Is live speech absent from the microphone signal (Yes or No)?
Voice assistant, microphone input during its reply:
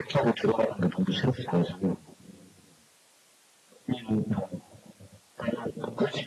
Yes